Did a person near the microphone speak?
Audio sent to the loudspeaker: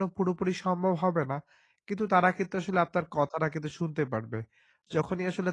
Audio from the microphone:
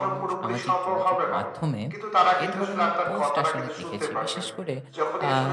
Yes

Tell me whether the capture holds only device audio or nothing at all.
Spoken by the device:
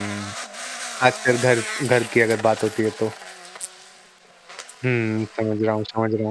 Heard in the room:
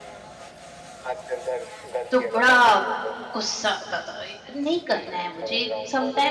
No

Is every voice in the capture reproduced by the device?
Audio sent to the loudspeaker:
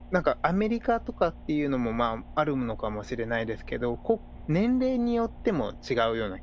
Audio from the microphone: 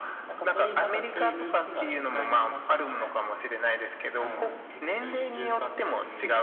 No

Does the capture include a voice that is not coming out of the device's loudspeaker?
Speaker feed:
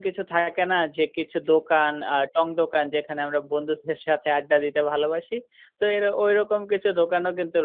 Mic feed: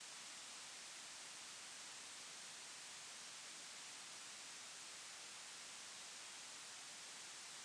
No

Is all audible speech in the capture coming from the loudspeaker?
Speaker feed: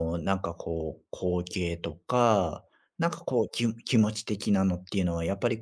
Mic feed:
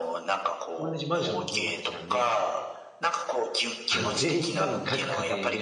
No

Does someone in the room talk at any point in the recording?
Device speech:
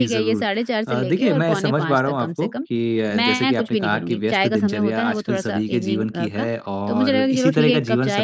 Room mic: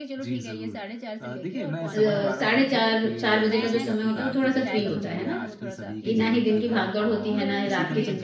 Yes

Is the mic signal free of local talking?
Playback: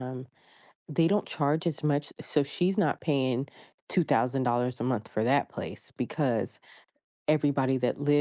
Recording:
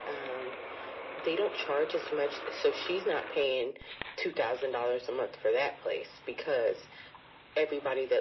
Yes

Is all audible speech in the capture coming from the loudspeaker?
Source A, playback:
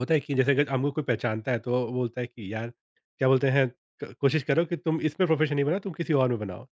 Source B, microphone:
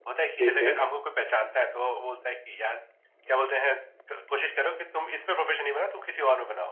No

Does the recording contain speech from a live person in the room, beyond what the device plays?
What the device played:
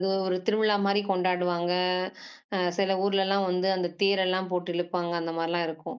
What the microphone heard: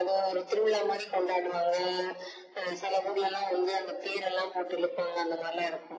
No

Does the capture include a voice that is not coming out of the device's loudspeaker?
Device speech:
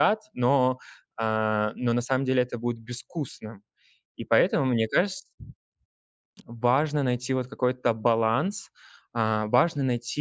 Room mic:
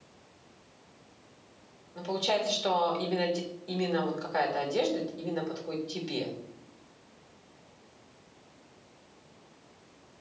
Yes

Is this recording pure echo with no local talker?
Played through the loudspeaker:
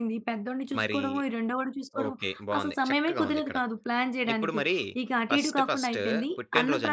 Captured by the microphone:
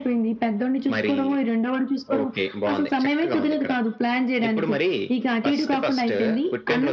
Yes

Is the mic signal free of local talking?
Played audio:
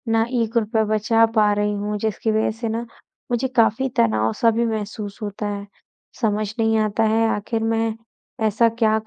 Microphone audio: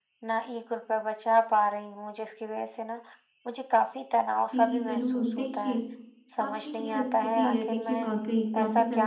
No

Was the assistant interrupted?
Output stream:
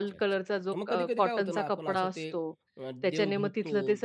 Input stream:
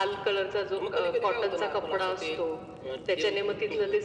No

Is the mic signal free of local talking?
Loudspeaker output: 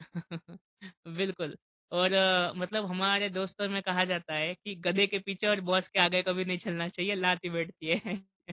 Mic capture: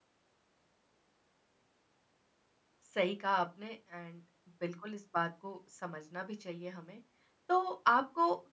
No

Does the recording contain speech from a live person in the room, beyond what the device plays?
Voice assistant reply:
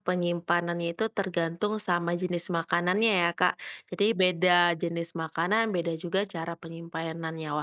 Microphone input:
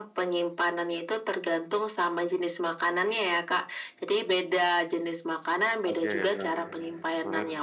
Yes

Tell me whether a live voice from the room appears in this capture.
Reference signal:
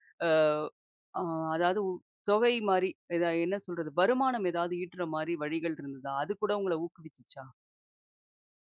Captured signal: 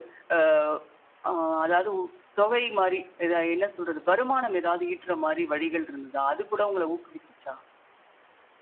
No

